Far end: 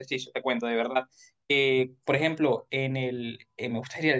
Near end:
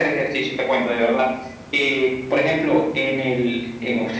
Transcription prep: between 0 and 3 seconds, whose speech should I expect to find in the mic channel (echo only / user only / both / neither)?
echo only